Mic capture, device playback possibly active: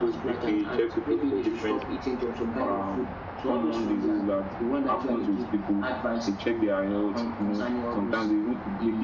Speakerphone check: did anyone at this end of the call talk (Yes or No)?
No